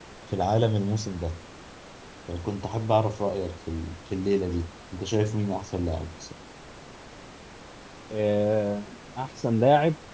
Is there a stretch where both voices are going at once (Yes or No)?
No